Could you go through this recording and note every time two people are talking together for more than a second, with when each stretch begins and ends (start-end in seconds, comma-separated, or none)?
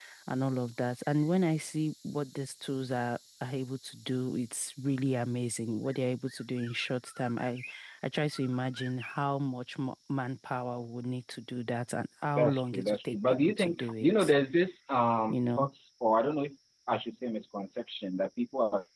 12.4-14.3